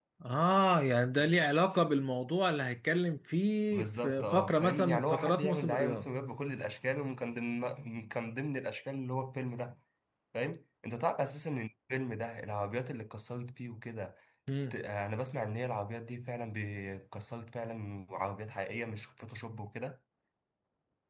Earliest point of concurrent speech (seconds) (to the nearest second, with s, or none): 4 s